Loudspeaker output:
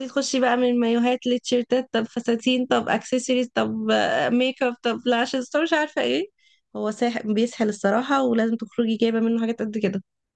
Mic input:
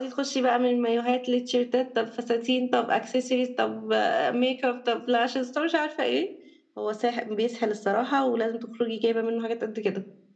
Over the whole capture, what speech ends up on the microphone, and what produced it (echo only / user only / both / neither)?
echo only